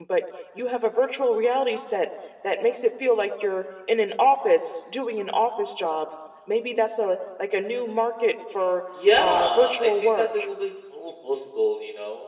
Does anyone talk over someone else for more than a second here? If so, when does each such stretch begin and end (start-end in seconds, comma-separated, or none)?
9.2-10.4